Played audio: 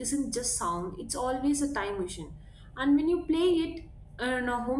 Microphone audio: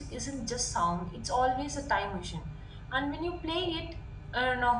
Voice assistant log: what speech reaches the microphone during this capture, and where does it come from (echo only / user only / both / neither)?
echo only